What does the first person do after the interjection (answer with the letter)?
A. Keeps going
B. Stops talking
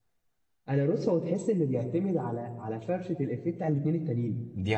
A